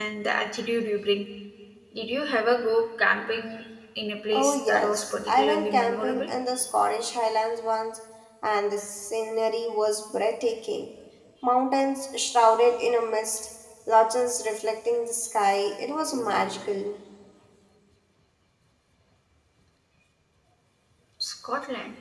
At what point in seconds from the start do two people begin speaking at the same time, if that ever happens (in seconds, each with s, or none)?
4.3 s